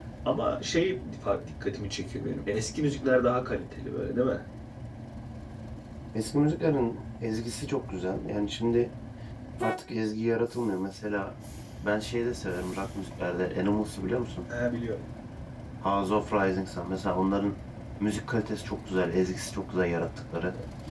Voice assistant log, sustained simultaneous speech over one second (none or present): none